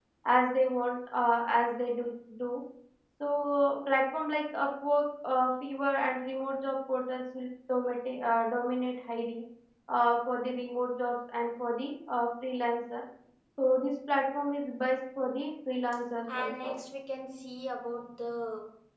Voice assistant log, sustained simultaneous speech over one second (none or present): none